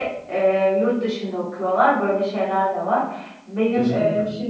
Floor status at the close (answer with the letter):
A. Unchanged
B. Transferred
A